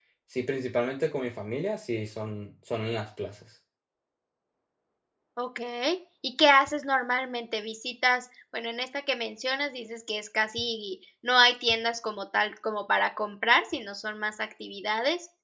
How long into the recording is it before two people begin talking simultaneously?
none

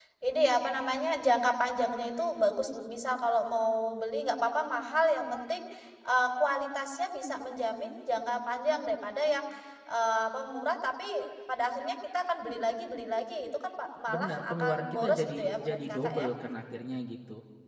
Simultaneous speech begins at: 14.1 s

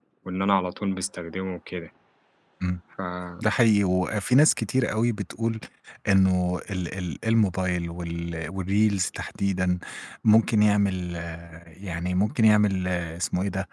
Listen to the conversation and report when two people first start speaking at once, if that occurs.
none

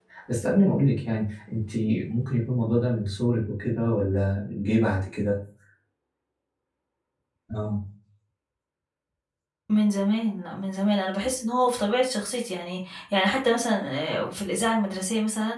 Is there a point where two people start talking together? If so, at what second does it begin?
none

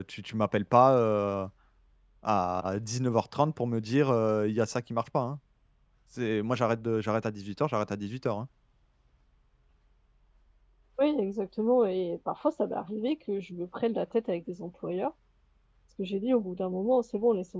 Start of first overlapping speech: none

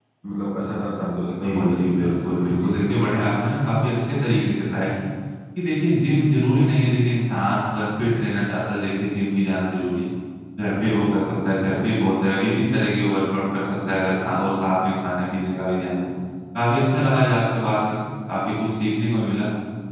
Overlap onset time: 1.4 s

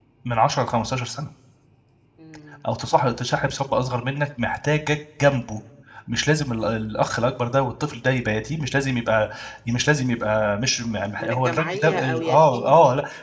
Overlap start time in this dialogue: 11.2 s

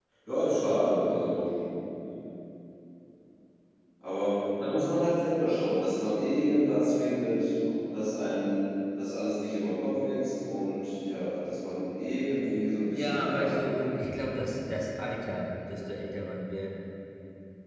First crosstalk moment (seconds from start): 12.9 s

